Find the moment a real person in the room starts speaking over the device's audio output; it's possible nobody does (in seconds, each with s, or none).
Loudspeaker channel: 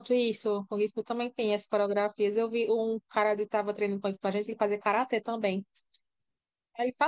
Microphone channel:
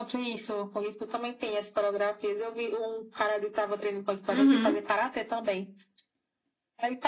4.3 s